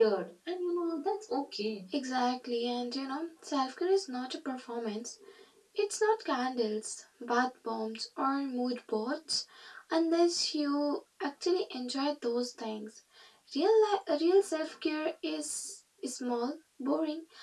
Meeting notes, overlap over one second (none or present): none